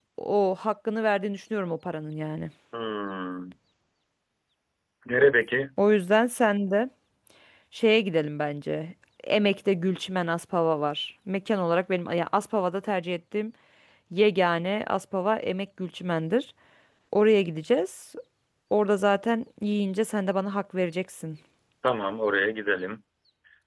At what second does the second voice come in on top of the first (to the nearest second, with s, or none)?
none